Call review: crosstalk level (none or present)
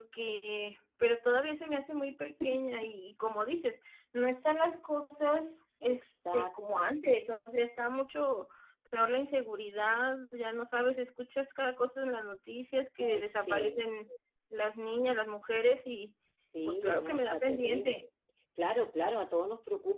present